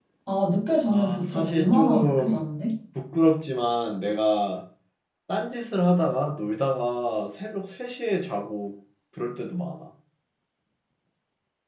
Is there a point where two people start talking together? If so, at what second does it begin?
1 s

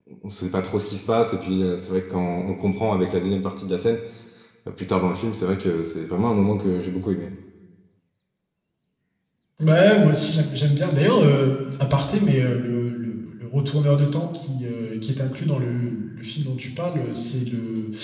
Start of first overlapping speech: none

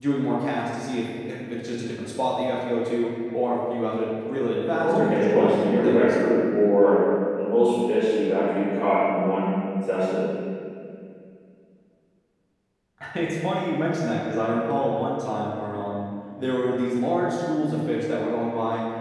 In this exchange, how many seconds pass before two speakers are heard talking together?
5 s

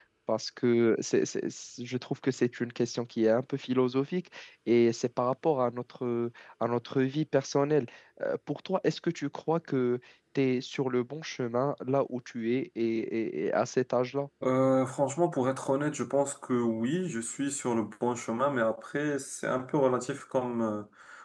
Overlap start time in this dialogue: none

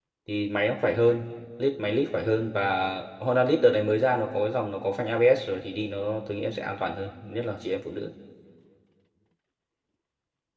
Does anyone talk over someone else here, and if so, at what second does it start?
none

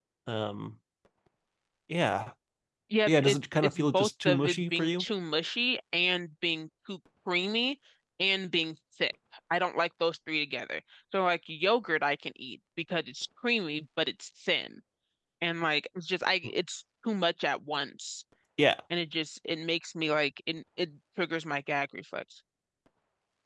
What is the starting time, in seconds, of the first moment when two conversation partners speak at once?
3 s

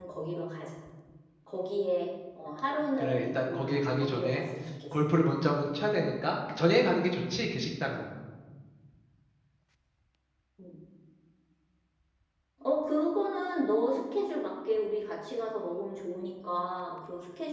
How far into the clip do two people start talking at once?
3 s

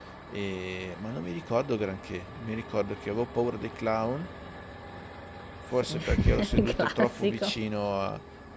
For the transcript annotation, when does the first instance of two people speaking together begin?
6 s

